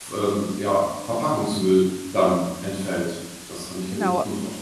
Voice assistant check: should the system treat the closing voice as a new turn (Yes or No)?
Yes